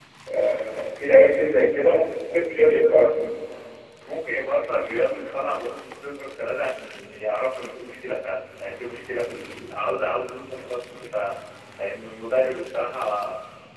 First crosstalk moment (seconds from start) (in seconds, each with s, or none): 1.8 s